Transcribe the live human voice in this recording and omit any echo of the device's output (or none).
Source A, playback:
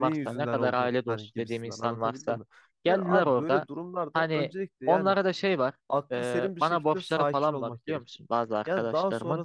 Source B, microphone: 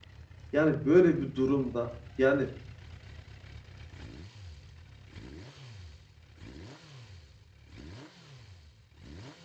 yani böyle bir durumda yani